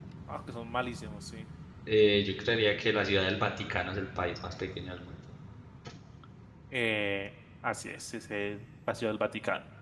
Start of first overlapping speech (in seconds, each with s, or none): none